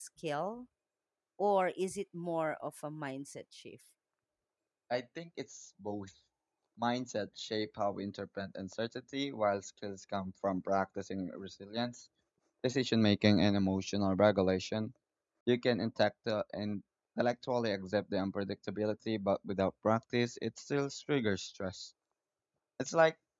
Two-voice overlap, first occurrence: none

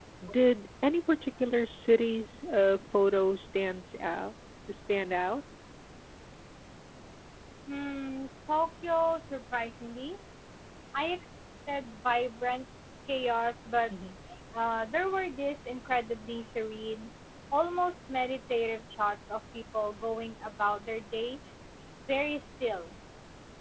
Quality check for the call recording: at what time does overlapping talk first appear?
none

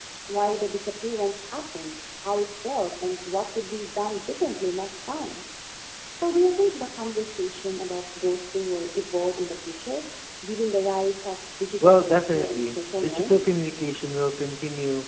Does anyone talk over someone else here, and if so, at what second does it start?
11.8 s

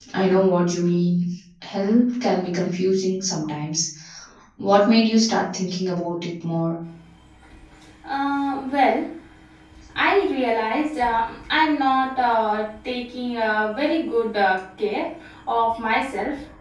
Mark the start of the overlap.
none

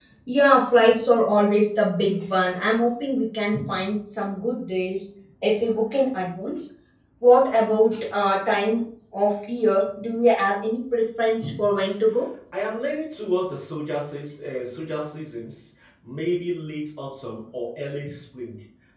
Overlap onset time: none

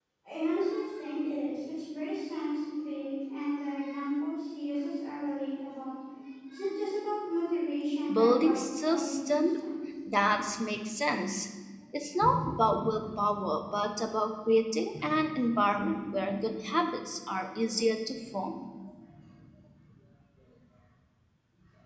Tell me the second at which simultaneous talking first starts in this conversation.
8.1 s

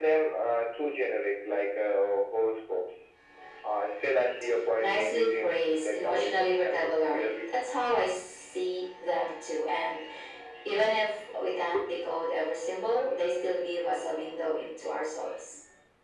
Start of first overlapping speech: 4.8 s

